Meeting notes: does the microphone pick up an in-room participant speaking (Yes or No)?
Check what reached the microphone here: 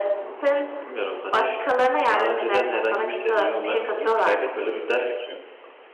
Yes